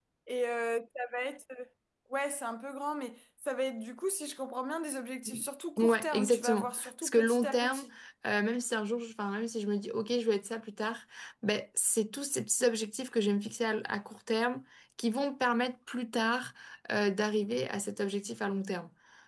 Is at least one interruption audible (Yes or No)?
Yes